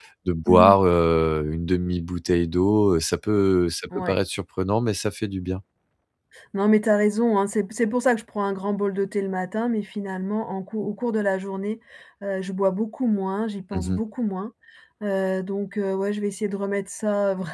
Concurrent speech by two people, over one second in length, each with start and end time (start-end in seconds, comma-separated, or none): none